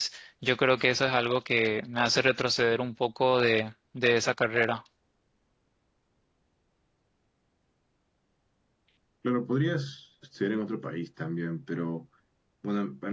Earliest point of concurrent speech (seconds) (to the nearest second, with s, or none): none